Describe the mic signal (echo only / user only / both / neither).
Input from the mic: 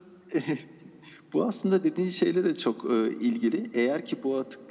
echo only